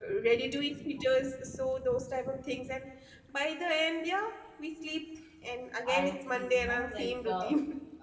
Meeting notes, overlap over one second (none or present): present